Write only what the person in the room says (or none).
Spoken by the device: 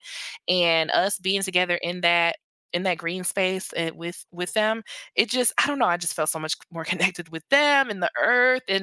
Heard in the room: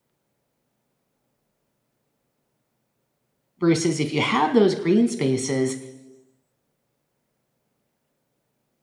Versus if you have those green spaces,